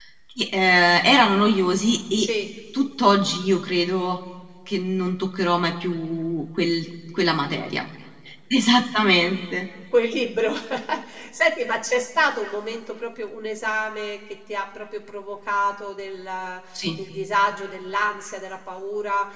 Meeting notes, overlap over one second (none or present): none